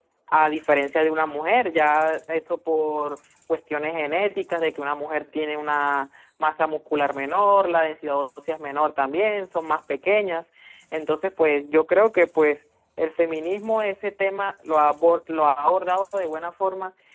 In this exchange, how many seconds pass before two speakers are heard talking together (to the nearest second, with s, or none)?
none